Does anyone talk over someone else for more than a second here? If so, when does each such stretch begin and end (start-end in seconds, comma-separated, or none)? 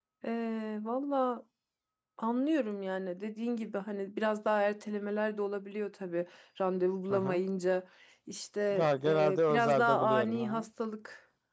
9.0-10.6